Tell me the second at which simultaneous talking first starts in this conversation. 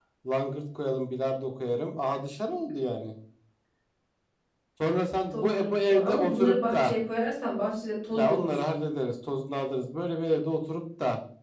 5.3 s

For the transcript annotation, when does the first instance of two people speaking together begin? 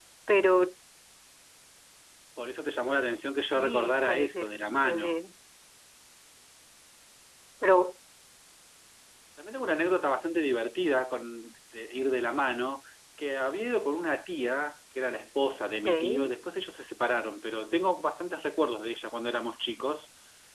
3.5 s

